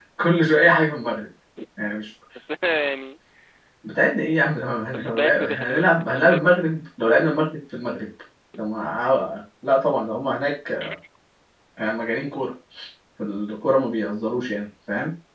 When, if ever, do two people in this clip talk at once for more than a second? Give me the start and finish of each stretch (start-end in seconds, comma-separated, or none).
4.9-6.6